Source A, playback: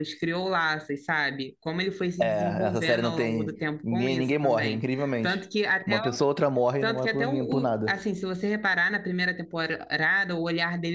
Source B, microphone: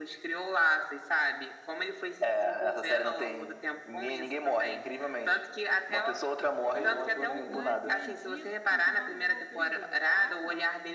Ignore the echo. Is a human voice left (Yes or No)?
Yes